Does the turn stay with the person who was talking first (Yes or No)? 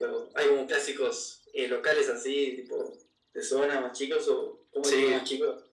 No